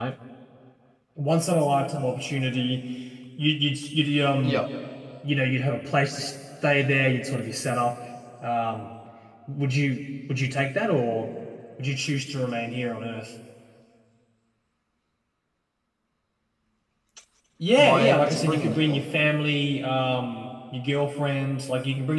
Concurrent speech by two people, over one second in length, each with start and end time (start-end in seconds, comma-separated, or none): 17.8-19.0